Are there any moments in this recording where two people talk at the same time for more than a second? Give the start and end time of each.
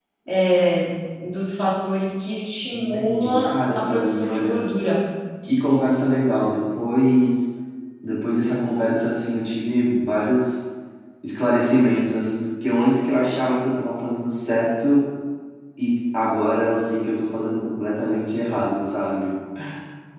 2.7-4.6

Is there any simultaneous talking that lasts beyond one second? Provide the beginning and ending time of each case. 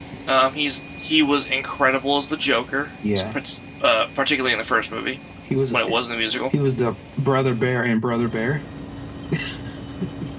none

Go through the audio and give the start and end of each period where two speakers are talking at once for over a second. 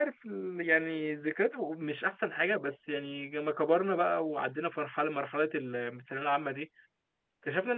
none

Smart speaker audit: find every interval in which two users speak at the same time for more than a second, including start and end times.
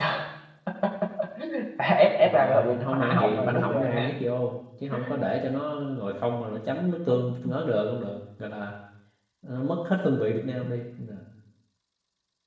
2.2-3.9

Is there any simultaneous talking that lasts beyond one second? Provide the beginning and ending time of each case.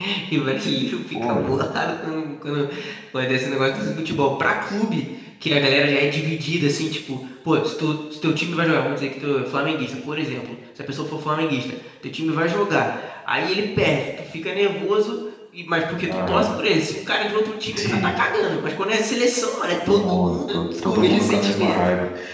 19.9-21.8

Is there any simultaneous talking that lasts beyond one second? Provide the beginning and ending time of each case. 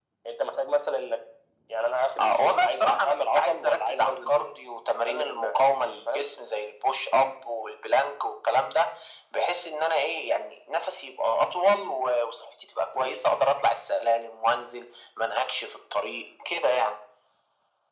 2.2-4.6

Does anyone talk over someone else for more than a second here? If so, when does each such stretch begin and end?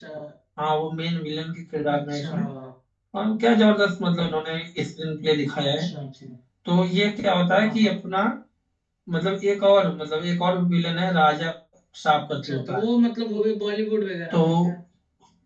none

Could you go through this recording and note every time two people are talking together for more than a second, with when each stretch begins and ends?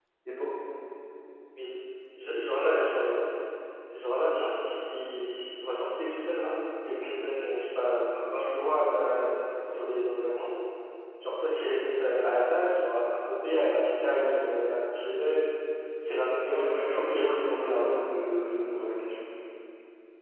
16.4-17.9

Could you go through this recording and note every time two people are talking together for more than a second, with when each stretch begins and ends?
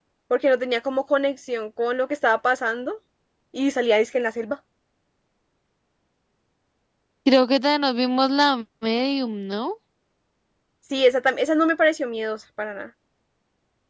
none

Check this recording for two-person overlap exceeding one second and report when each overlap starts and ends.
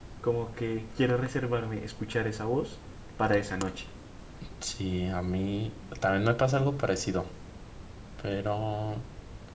none

